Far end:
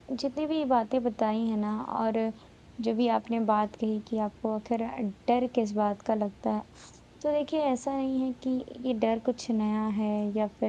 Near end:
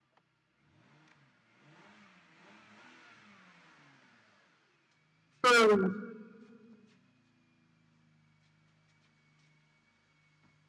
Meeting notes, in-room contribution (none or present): present